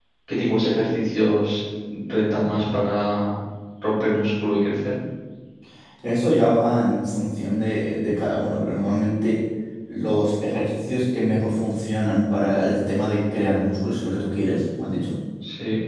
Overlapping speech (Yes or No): No